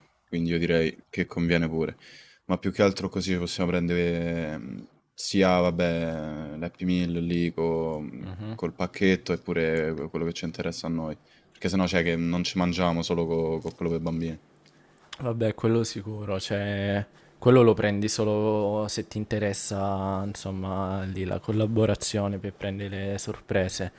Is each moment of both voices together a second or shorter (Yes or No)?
Yes